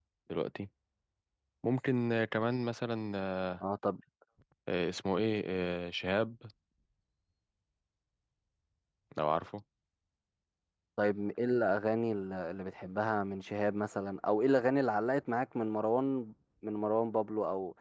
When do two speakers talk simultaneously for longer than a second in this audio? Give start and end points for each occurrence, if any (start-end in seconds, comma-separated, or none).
none